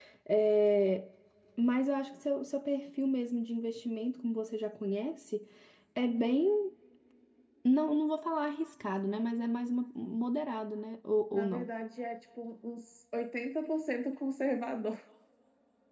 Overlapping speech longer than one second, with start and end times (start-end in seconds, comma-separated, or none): none